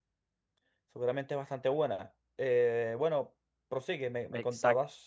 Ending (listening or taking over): taking over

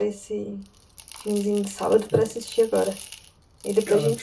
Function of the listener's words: taking over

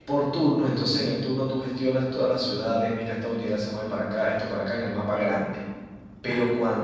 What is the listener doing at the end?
listening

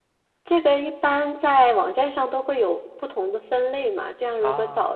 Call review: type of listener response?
listening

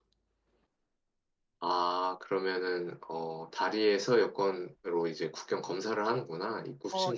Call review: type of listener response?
taking over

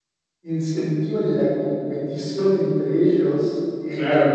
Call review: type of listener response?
listening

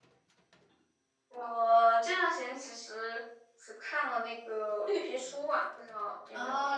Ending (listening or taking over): taking over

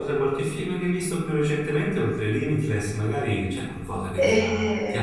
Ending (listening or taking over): listening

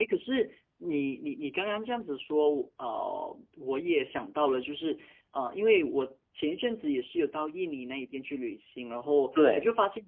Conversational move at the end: listening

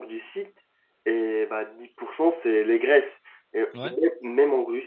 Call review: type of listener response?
listening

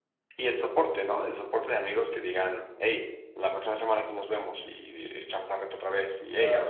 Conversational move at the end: taking over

